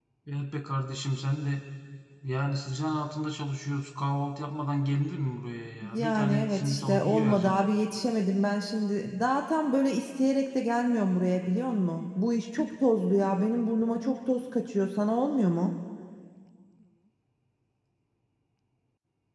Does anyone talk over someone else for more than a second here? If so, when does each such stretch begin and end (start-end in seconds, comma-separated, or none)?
5.9-7.6